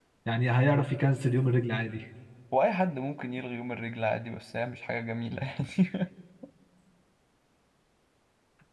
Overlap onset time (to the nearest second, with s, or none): none